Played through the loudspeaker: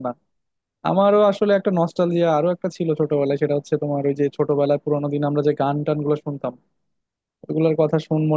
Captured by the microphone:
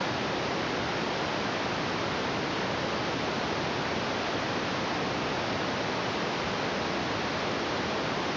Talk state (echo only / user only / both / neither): neither